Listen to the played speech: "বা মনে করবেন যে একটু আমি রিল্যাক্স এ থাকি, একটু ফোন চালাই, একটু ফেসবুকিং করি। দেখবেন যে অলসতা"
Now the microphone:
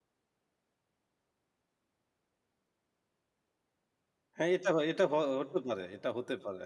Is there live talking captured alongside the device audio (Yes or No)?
Yes